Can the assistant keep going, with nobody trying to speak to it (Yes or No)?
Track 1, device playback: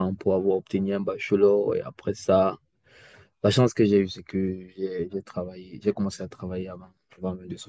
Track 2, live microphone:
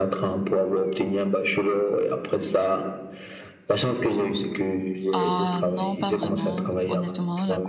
No